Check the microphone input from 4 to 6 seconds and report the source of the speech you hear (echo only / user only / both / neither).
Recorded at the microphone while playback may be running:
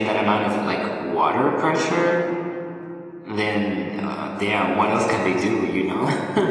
echo only